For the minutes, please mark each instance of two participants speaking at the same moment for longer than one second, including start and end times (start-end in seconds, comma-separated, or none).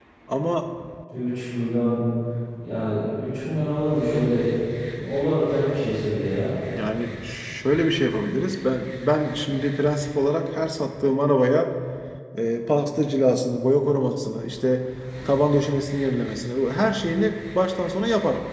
none